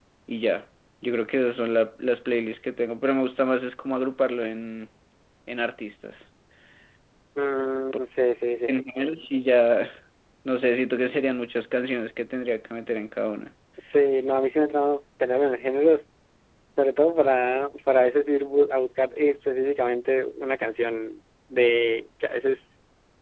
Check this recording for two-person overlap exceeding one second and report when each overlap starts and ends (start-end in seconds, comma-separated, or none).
none